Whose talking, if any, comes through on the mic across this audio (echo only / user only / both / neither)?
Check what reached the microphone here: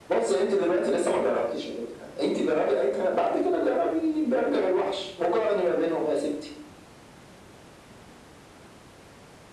echo only